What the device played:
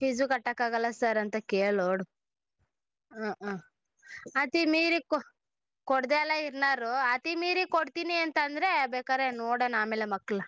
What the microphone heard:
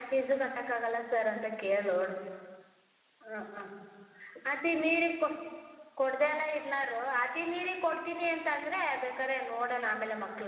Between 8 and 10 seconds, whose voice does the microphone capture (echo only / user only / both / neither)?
echo only